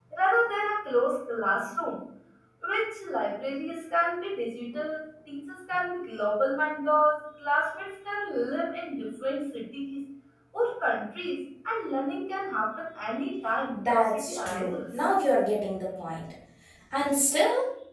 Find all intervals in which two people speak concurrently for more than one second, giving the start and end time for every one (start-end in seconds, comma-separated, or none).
13.7-15.0